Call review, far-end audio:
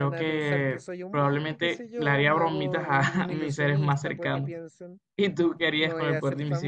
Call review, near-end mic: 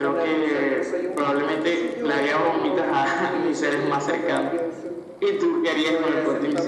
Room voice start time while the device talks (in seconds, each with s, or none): none